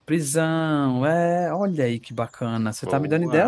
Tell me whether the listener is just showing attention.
No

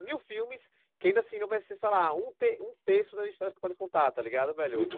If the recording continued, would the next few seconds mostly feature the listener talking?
Yes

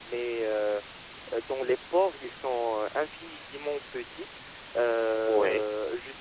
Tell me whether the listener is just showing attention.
Yes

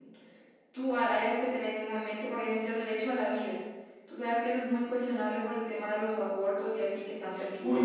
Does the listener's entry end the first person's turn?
Yes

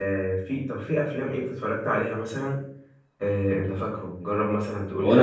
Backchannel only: No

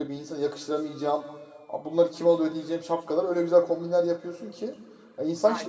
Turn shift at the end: Yes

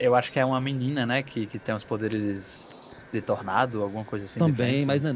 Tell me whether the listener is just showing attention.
No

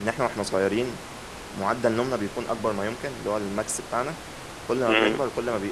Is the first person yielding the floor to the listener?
No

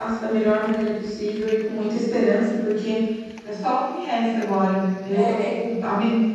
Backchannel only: Yes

